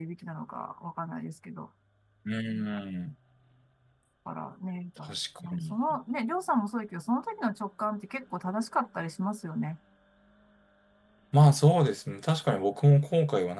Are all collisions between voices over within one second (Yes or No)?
Yes